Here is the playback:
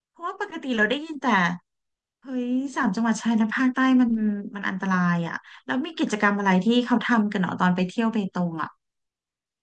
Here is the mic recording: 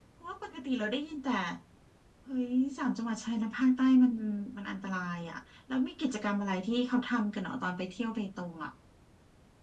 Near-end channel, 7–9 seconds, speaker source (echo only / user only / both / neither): echo only